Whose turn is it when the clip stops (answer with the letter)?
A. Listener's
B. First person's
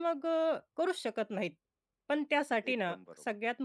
B